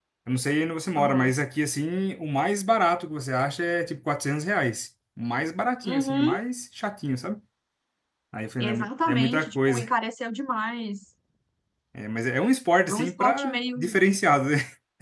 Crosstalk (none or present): present